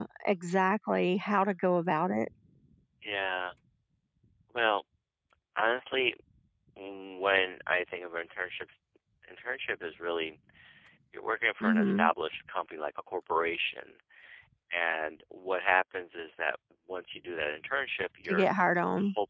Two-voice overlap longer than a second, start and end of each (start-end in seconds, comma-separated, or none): none